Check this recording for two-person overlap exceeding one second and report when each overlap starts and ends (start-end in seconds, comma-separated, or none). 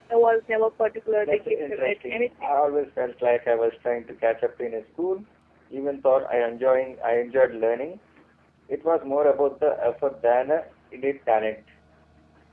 1.2-2.5